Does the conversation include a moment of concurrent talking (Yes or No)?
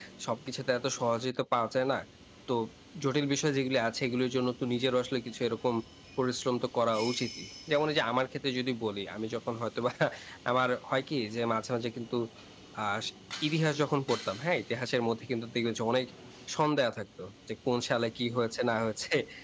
No